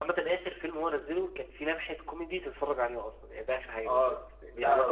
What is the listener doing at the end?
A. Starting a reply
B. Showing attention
A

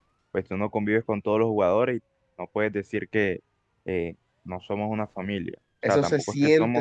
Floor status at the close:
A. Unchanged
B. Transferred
B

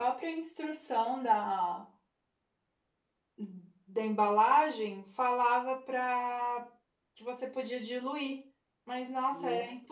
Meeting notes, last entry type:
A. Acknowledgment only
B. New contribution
A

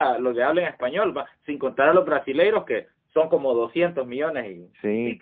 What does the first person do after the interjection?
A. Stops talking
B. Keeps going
A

